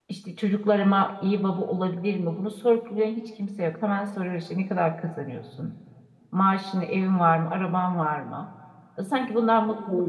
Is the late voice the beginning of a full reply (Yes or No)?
Yes